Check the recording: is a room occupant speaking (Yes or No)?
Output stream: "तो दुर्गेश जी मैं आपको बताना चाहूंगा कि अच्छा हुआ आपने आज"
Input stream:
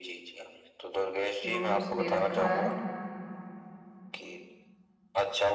Yes